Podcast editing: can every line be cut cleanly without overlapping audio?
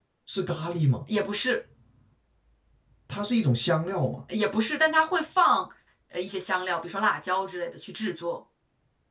Yes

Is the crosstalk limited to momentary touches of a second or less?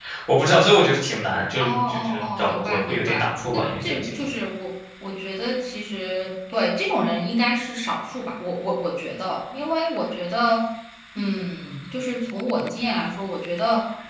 No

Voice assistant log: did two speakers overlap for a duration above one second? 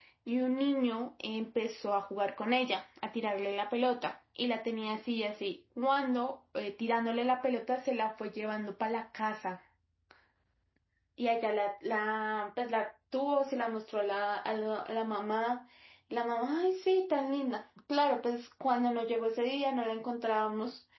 No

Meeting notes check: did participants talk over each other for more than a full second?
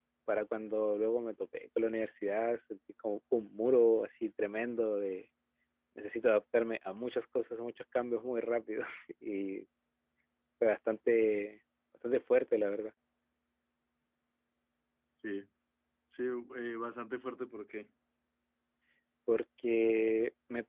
No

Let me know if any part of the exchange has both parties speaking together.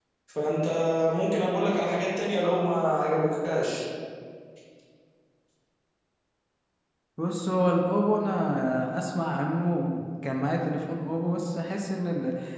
No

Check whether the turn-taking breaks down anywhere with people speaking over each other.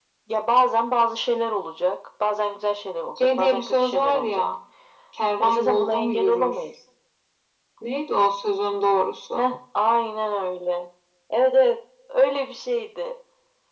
Yes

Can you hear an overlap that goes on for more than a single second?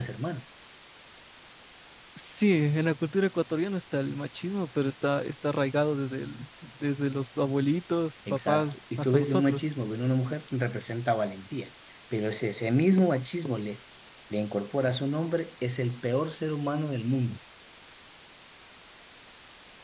Yes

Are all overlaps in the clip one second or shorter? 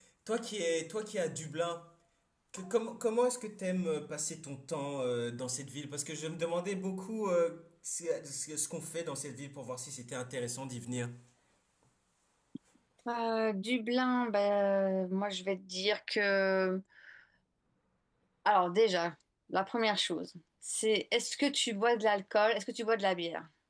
Yes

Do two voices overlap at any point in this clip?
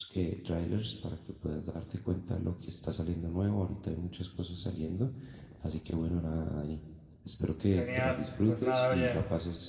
Yes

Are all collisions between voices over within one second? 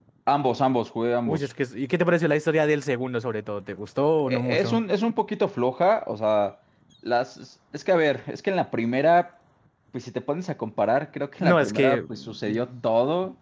No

